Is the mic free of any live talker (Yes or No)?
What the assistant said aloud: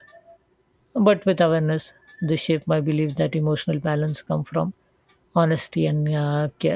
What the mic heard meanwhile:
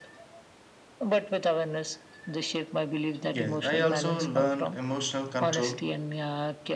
No